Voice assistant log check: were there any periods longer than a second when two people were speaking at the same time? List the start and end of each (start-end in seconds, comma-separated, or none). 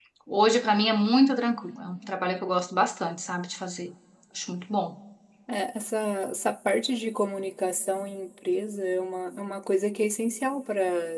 none